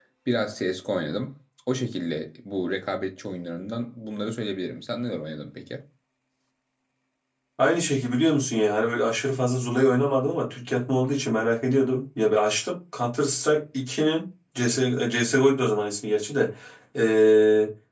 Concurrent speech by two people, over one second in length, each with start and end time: none

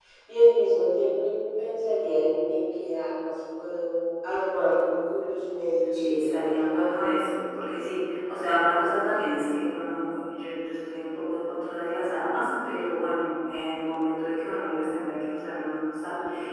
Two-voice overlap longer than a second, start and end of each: 5.9-7.3

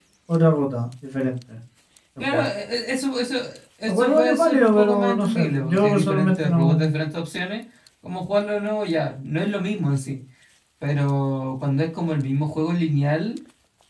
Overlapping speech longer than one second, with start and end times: 3.8-6.9

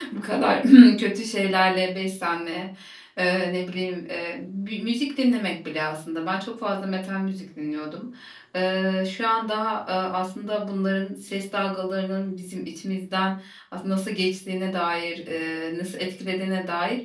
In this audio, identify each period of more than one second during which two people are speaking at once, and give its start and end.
none

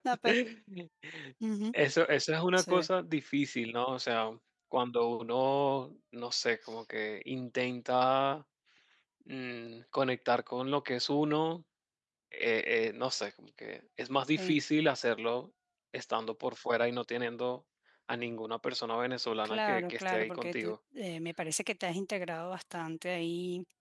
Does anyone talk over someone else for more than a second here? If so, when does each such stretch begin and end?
19.4-20.7

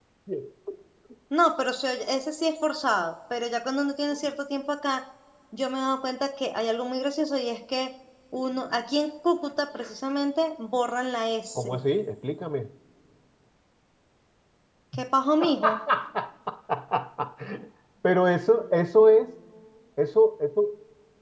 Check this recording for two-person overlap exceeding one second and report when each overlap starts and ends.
none

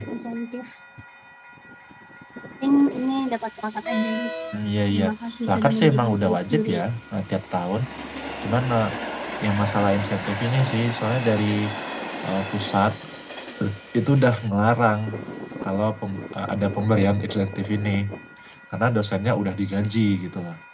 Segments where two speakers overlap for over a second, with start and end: 5.5-6.8

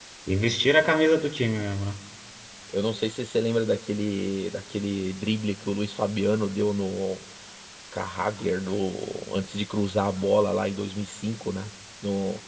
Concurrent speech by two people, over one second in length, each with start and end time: none

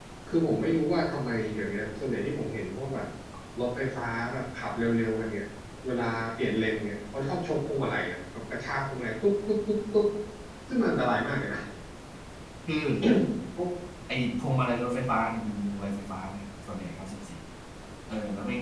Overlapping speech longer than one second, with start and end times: none

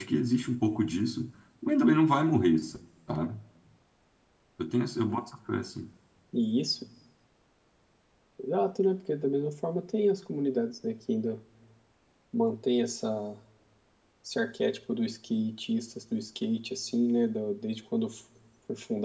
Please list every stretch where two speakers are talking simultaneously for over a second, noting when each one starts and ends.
none

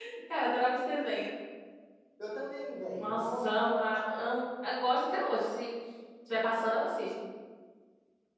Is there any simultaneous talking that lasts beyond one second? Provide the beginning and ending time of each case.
3.0-4.2

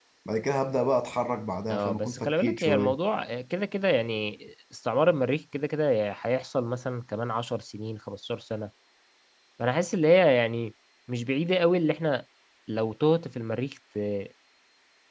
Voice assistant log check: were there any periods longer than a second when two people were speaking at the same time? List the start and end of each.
1.7-3.0

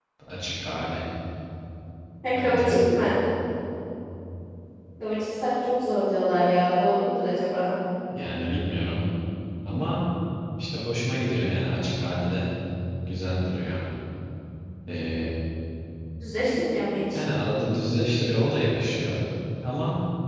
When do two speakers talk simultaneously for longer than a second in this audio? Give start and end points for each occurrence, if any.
none

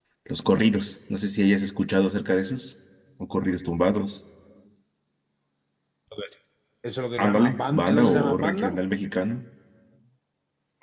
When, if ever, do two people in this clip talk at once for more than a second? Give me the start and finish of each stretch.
7.2-8.8

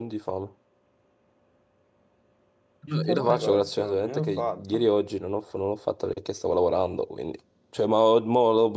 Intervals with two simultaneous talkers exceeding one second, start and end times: 2.9-4.9

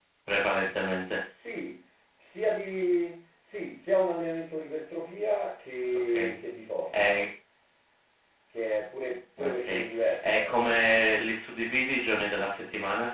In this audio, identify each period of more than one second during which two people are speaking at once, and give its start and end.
9.4-10.8

